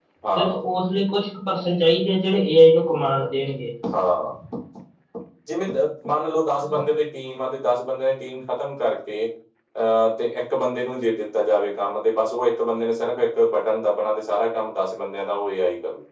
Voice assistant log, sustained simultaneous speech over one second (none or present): none